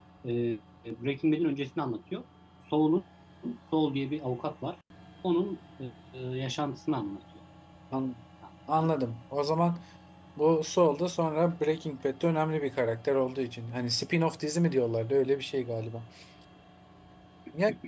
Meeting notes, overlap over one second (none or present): none